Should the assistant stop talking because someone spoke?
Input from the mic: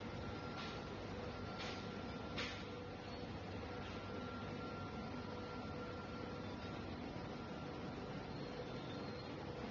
No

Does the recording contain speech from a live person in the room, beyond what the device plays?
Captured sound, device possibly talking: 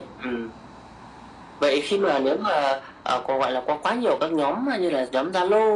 No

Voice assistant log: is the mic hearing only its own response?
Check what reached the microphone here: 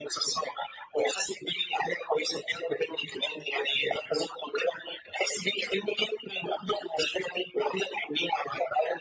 Yes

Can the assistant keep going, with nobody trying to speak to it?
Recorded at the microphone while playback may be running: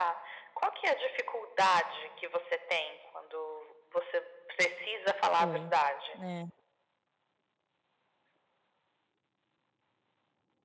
No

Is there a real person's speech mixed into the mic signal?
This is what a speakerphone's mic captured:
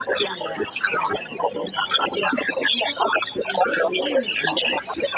Yes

